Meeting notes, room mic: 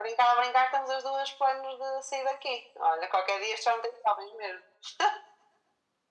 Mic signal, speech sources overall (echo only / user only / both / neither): echo only